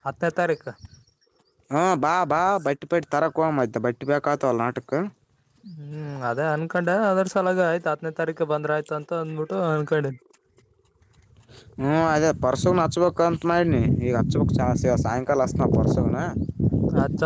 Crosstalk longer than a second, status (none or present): none